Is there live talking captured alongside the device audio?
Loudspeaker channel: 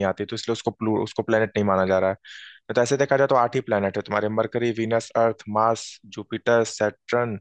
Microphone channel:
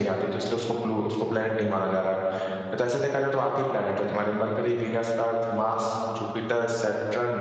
No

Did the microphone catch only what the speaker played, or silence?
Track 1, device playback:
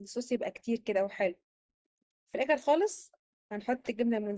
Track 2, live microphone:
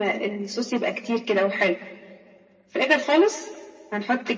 Yes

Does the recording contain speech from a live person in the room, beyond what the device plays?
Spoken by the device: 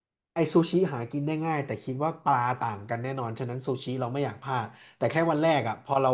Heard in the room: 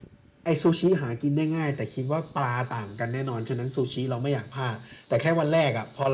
No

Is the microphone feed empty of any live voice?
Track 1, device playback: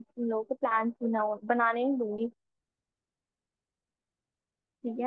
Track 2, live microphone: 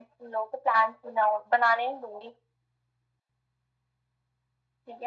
Yes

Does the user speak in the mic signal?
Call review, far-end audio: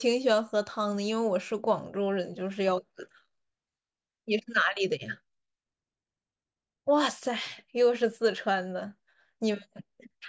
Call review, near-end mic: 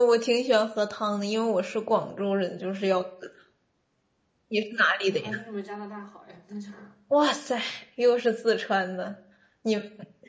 Yes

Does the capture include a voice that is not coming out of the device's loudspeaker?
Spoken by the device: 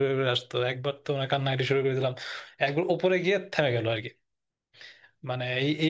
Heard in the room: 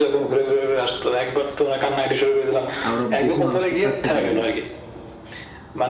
Yes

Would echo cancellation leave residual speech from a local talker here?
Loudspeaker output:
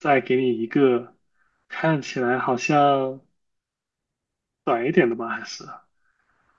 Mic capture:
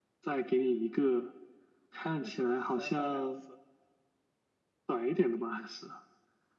Yes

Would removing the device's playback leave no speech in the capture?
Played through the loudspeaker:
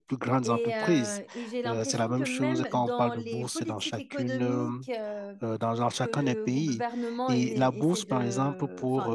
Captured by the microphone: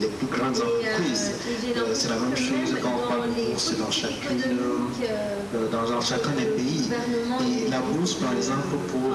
Yes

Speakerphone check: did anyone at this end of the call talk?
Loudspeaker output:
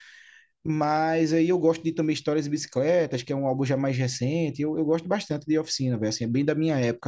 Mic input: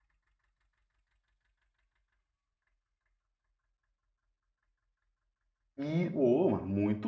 Yes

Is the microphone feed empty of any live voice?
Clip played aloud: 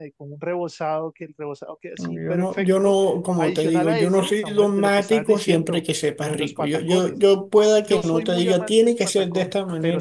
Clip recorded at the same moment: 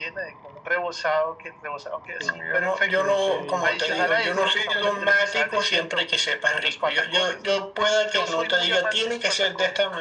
No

